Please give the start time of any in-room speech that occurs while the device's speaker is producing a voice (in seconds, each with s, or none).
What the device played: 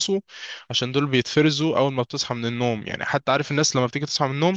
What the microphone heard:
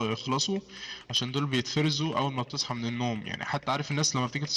none